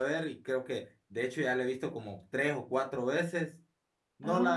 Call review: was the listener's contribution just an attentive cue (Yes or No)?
Yes